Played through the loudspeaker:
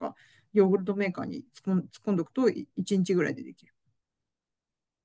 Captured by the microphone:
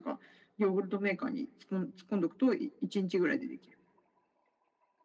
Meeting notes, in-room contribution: none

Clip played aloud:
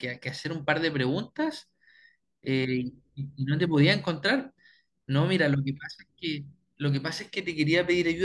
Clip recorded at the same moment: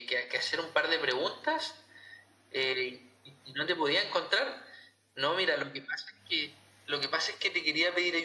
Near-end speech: none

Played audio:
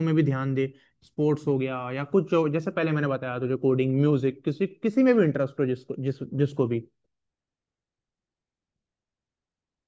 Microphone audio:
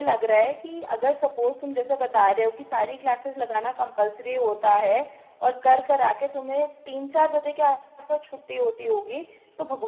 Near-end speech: present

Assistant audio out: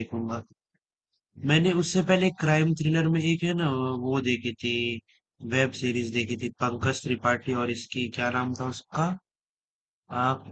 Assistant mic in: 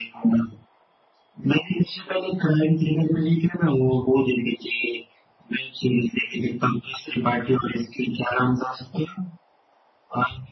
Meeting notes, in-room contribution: none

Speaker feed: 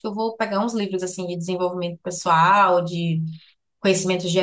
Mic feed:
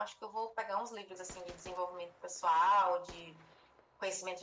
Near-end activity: none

